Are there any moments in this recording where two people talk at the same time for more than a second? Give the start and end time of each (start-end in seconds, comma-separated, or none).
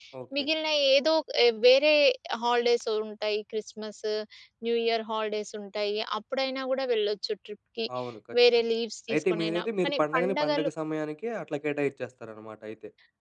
9.1-10.7